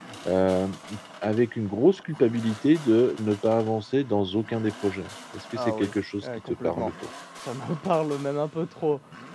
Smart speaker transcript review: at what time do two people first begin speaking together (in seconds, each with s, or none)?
5.6 s